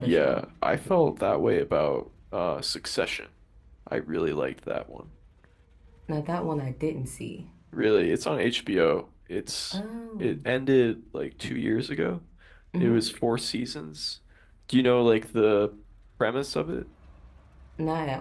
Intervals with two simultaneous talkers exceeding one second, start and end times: none

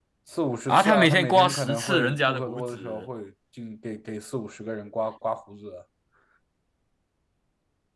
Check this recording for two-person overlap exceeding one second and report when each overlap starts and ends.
0.7-3.0

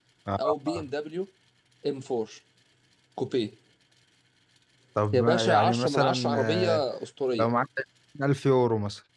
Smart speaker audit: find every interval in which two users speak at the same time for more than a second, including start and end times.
5.1-6.8

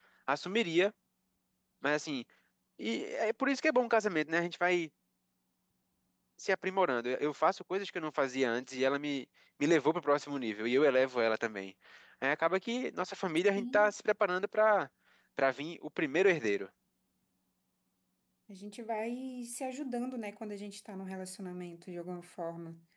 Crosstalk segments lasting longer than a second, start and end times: none

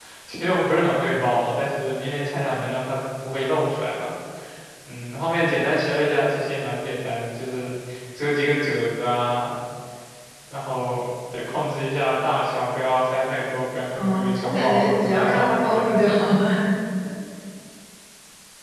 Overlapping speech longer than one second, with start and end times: 13.9-15.9

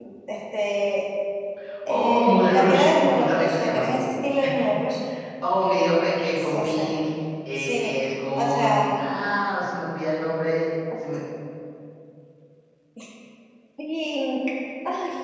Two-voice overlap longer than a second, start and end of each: 1.9-4.0

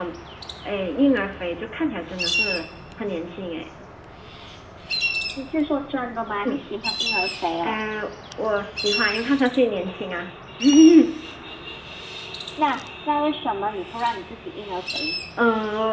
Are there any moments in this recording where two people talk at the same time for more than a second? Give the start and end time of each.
none

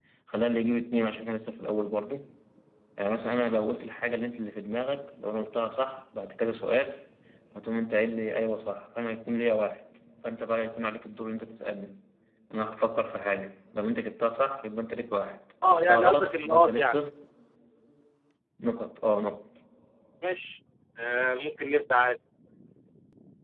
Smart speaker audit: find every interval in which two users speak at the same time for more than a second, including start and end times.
15.7-17.0

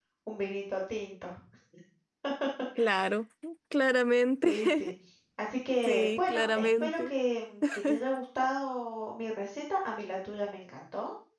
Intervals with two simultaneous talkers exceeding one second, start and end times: 5.9-7.1

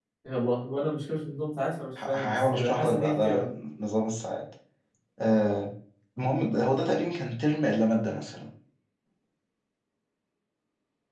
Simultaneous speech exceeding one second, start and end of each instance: 2.0-3.5

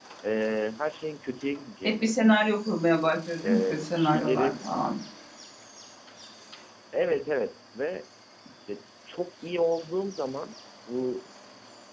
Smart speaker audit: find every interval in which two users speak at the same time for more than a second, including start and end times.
3.4-4.6

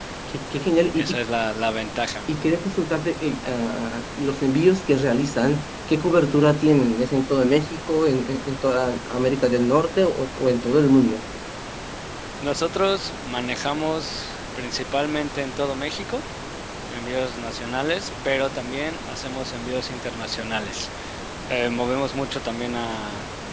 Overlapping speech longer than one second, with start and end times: none

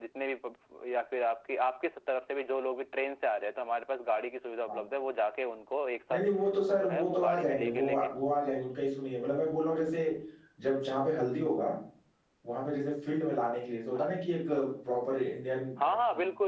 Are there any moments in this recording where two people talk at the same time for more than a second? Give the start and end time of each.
6.6-8.0

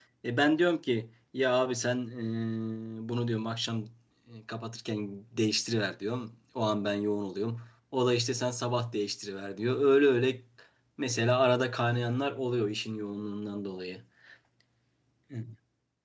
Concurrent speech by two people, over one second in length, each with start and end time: none

